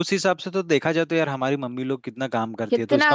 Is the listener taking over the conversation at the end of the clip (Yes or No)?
No